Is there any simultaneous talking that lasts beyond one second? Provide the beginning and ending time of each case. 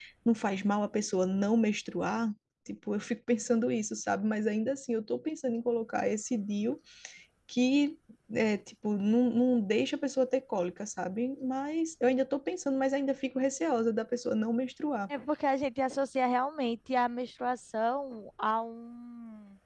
none

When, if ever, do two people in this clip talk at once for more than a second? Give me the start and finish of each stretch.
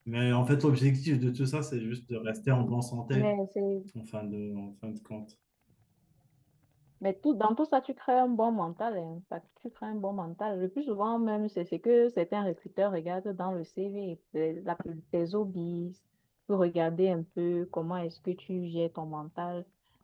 none

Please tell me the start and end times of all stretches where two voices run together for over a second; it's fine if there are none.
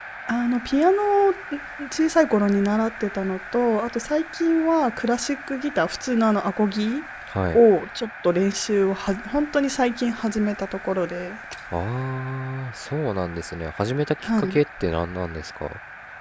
none

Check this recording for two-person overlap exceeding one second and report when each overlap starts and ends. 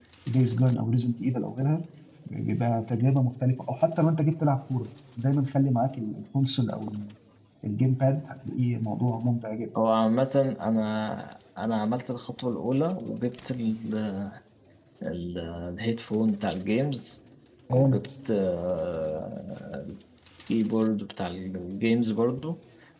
none

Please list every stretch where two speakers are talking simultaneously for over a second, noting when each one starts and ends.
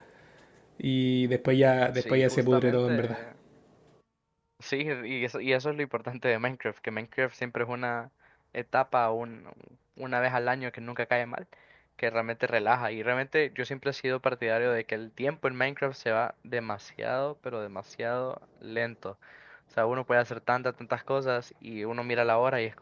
2.0-3.2

